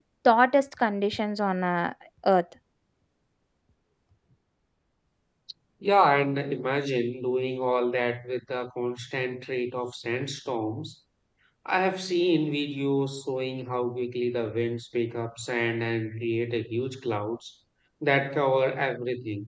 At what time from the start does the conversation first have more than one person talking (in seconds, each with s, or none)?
none